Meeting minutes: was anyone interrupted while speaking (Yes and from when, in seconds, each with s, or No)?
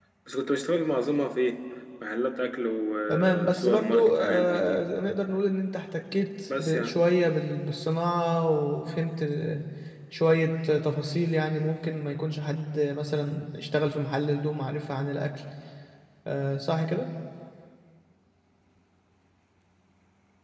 Yes, from 3.1 s